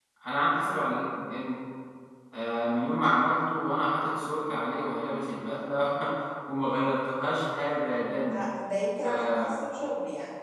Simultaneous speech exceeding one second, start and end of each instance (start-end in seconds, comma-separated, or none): none